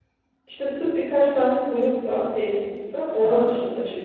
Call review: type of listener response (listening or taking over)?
listening